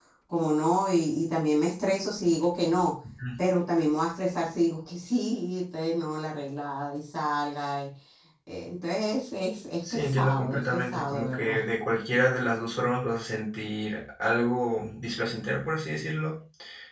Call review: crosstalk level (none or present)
present